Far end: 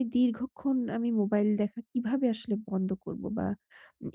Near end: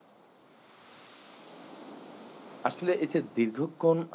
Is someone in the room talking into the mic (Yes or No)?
Yes